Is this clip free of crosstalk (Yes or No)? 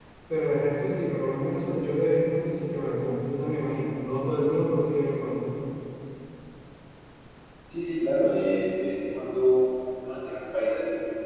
Yes